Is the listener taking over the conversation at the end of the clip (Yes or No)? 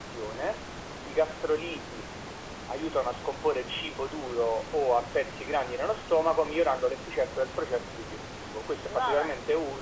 No